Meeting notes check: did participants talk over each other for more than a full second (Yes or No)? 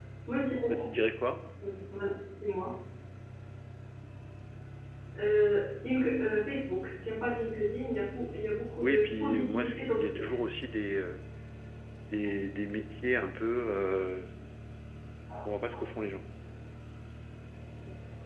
Yes